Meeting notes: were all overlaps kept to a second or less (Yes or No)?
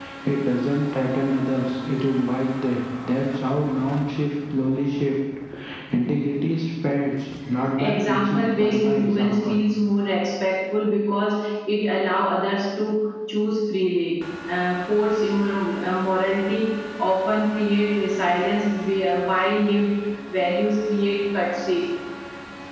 No